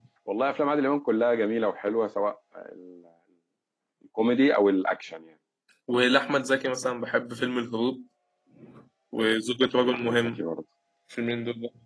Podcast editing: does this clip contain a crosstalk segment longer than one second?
No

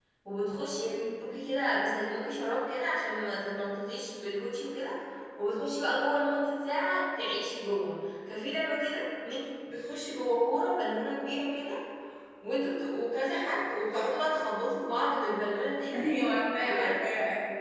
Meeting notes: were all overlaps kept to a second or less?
Yes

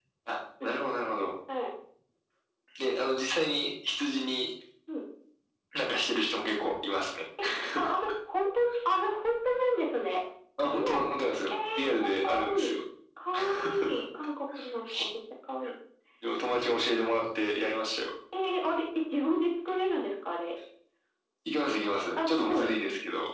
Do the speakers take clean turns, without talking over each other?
No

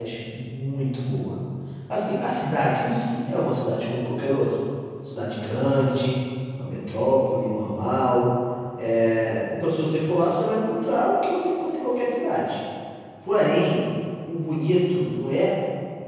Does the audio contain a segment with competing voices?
No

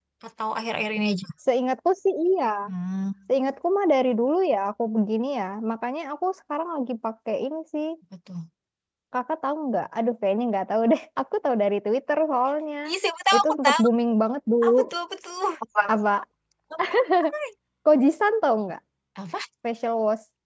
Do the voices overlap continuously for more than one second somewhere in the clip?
No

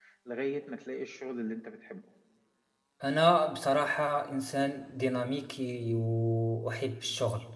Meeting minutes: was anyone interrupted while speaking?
No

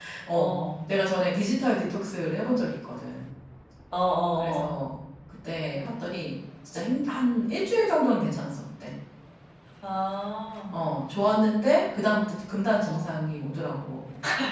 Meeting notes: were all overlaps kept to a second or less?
Yes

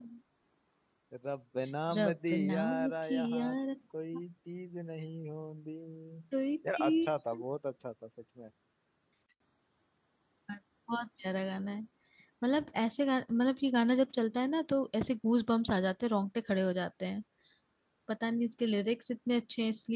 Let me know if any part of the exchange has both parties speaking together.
Yes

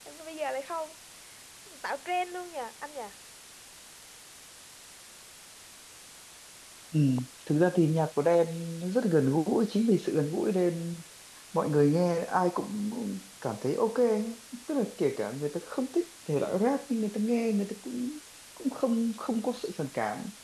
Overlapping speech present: No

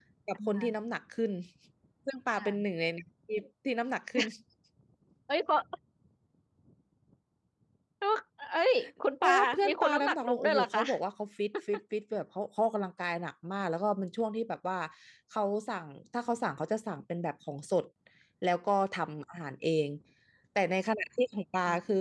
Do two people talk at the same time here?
Yes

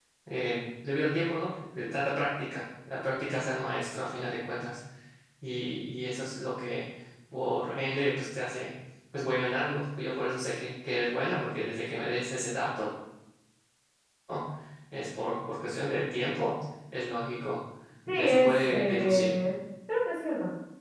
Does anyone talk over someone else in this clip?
Yes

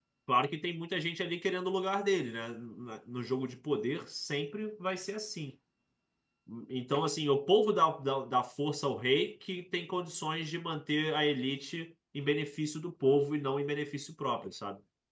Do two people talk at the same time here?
No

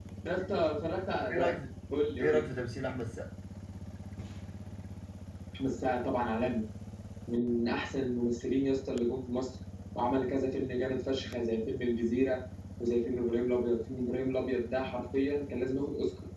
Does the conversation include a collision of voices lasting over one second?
No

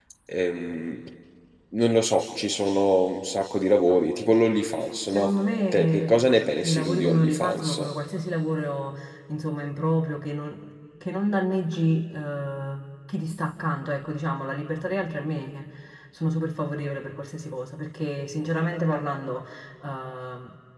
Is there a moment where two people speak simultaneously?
Yes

